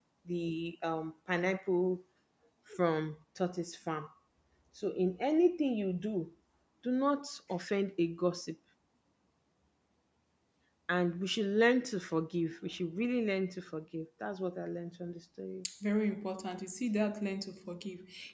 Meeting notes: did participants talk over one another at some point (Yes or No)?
No